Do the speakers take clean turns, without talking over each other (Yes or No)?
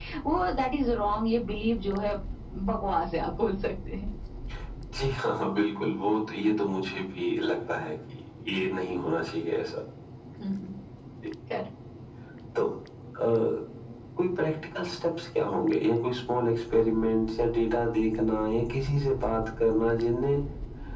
Yes